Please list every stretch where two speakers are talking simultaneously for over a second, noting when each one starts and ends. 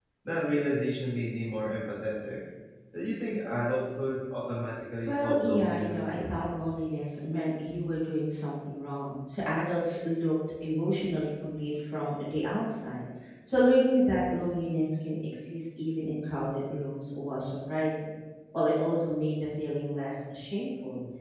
5.0-6.3

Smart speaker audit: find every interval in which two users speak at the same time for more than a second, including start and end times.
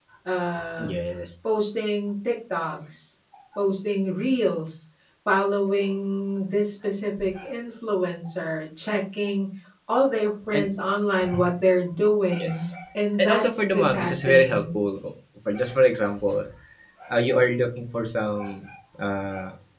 13.2-14.6

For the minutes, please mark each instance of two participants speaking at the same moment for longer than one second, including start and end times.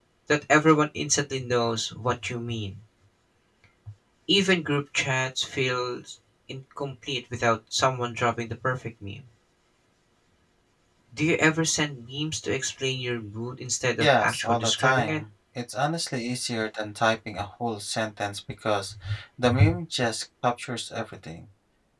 14.0-15.2

